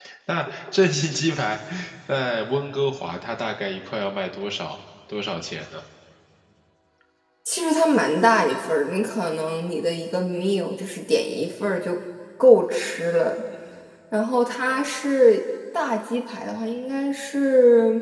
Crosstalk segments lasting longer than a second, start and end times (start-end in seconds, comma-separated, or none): none